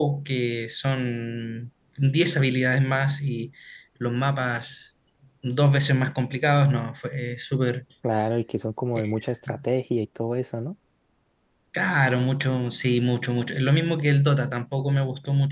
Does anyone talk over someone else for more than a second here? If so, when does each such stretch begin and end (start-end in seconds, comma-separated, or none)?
none